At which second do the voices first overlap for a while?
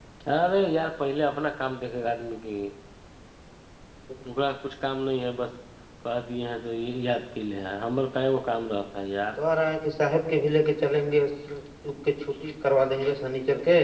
none

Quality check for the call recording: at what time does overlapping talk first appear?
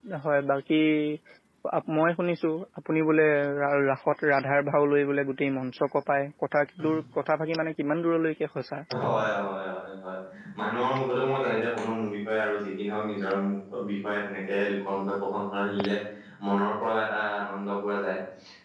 none

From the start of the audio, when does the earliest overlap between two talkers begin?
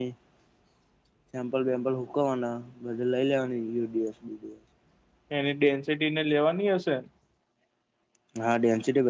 none

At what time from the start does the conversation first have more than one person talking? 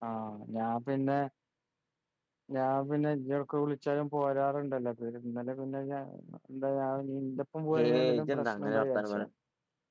7.8 s

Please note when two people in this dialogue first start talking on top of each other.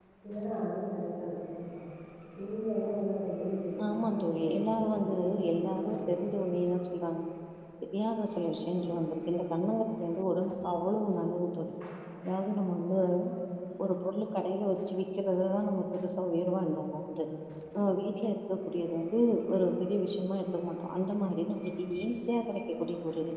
3.9 s

